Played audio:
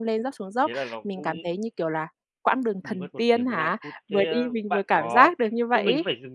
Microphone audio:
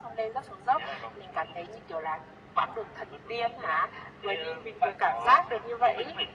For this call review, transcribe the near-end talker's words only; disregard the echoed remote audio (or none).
none